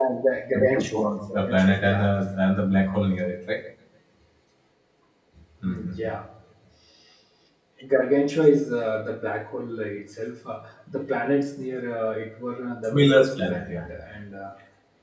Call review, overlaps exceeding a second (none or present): present